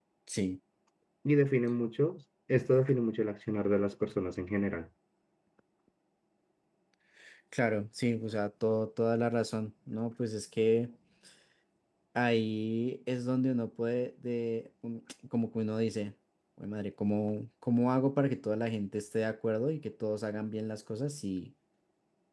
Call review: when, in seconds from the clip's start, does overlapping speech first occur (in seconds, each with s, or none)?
none